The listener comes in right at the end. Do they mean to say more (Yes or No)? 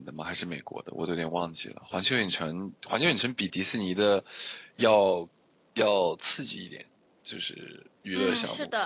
Yes